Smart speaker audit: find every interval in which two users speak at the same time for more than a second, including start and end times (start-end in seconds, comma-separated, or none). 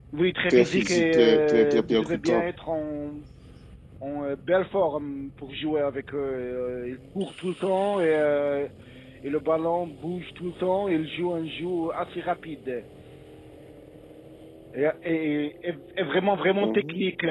0.5-2.5